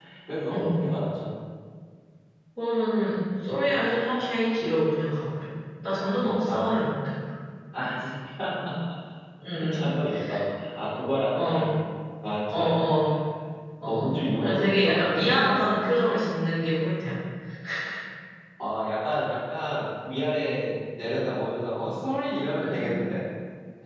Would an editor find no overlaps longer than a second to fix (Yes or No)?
No